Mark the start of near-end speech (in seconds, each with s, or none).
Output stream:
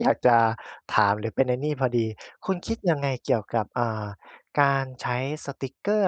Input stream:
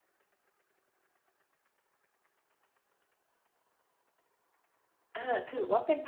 5.2 s